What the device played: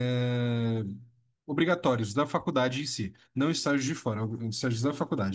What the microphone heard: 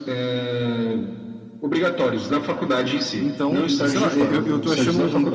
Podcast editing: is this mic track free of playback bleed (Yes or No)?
No